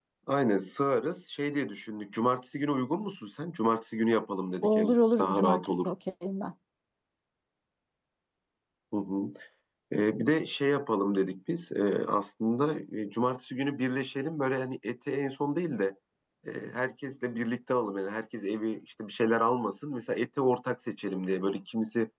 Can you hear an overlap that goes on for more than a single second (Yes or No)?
Yes